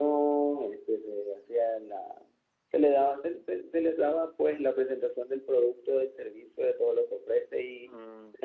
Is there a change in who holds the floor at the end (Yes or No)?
No